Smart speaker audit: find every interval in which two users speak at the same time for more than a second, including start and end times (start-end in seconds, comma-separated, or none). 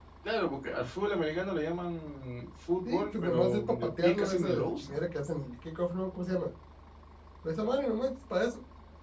2.8-5.0